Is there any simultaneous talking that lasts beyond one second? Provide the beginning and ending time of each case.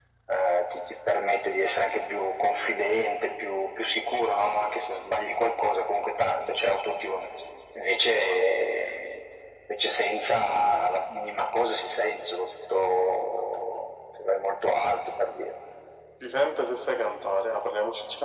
none

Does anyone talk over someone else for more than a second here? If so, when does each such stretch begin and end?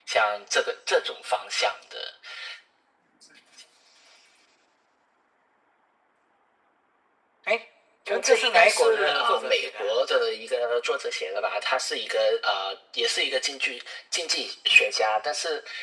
8.1-9.9

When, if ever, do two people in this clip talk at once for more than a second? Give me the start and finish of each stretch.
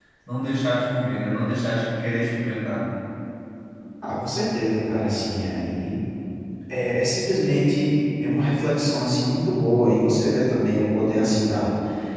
none

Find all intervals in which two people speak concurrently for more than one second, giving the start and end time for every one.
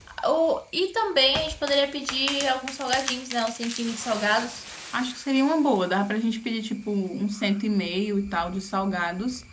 none

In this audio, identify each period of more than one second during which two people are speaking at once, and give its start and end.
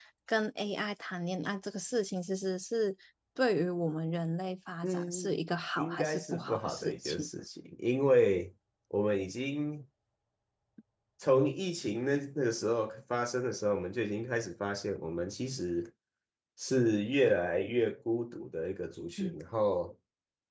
5.8-7.3

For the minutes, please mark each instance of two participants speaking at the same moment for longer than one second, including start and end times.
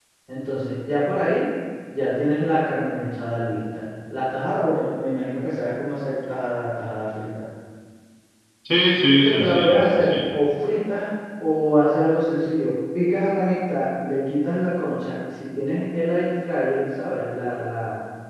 9.1-10.3

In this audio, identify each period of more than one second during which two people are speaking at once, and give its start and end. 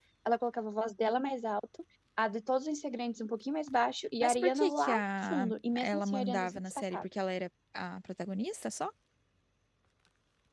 4.2-7.1

